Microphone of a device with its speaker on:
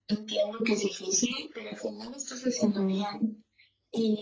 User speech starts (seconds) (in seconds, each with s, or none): 2.6 s